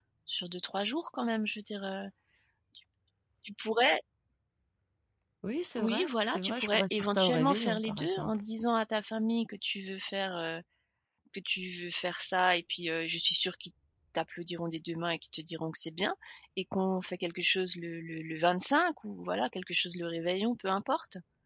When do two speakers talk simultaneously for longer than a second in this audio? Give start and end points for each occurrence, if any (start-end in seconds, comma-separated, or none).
5.8-8.4